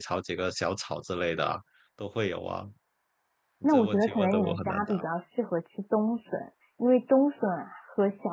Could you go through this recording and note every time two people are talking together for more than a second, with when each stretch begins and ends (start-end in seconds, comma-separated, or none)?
3.6-5.0